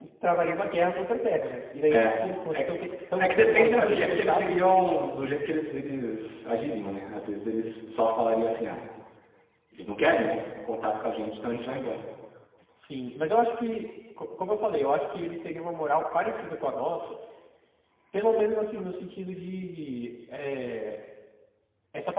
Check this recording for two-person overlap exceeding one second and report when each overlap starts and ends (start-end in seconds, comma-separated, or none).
3.1-4.5